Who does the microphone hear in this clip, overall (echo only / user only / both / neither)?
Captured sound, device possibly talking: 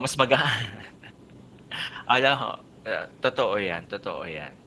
user only